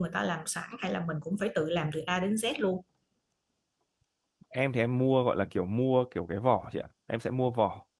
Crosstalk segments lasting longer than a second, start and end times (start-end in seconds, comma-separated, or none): none